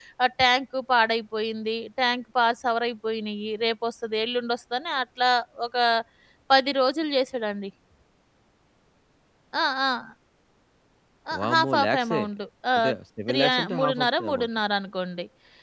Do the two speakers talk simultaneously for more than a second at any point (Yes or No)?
Yes